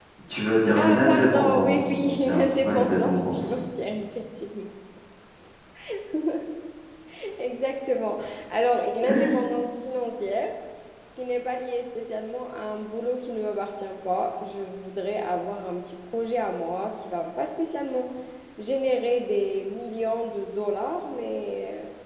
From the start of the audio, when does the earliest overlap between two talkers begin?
0.8 s

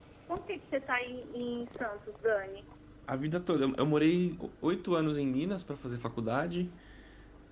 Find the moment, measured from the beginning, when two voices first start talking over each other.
none

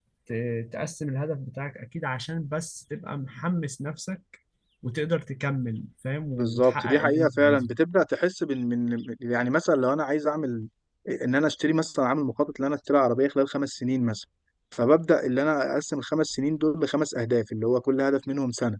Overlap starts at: 6.3 s

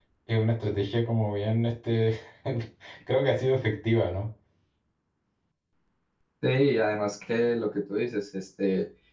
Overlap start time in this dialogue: none

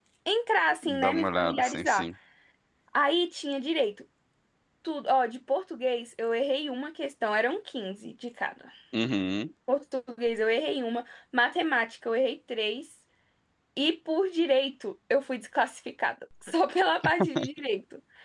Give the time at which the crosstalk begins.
0.8 s

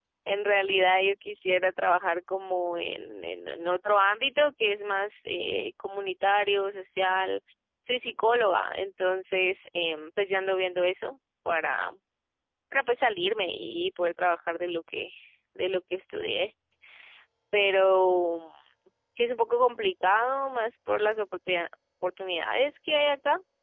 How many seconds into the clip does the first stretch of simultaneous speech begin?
none

